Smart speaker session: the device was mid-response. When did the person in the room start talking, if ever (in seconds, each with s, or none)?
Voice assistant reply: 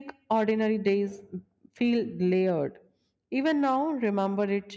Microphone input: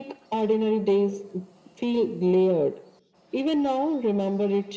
none